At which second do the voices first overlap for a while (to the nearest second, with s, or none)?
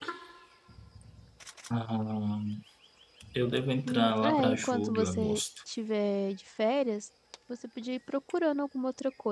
4 s